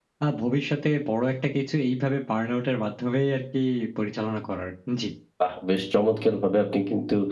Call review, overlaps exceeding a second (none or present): none